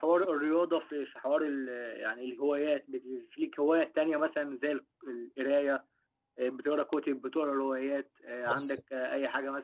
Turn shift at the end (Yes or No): No